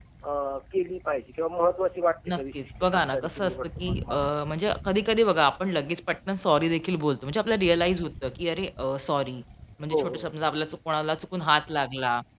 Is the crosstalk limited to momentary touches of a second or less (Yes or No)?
No